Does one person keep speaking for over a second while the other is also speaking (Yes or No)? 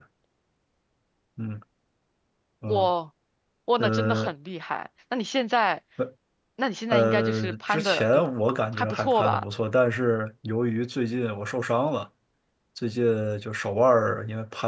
Yes